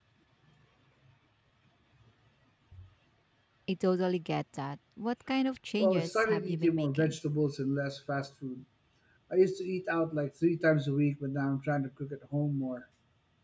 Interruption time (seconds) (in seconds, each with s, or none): 5.8 s